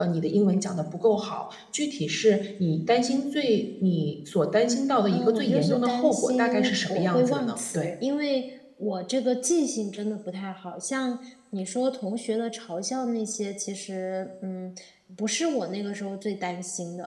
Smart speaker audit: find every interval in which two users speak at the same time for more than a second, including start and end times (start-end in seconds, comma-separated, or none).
5.1-7.9